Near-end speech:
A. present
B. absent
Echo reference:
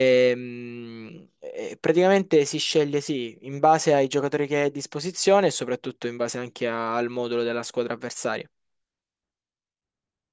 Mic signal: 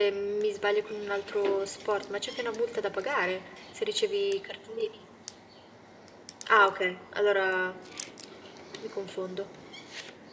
A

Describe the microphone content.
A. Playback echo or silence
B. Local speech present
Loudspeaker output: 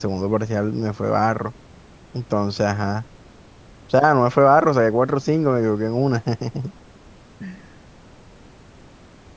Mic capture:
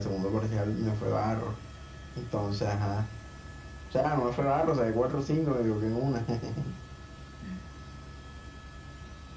A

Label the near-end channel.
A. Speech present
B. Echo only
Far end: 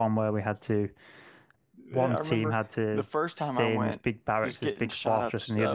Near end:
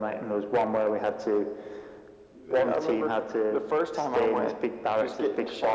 B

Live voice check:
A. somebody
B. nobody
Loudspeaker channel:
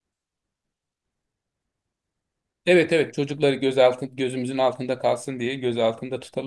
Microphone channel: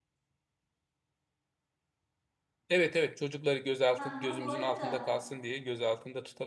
A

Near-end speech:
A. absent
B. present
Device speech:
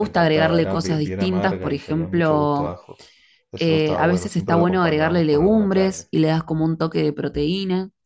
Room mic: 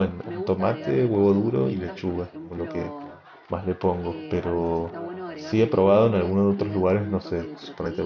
B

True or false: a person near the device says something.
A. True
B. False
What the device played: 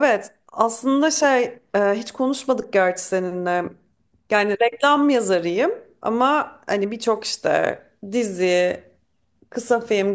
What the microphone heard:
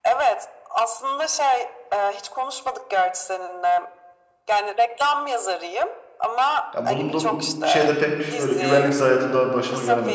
A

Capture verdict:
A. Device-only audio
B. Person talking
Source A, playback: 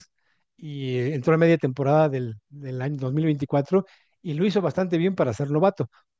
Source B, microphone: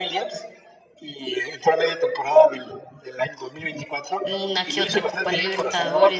B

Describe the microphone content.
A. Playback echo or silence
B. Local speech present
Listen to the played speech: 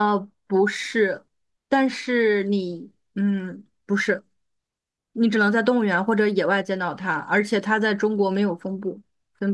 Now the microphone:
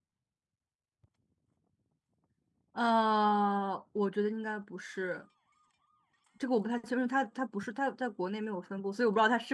B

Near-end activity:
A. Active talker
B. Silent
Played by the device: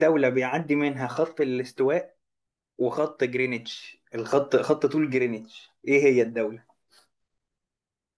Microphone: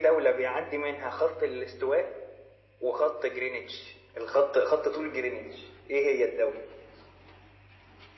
B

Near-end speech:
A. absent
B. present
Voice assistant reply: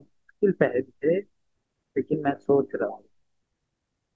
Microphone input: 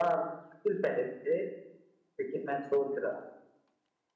A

